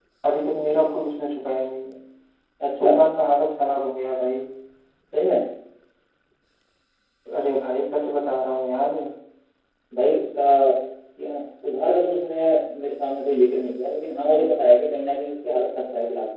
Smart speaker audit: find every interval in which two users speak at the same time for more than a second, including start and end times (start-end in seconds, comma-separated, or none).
none